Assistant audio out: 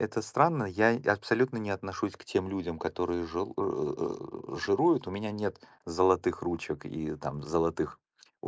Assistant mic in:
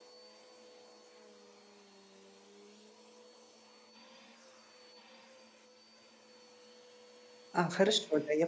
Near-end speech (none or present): present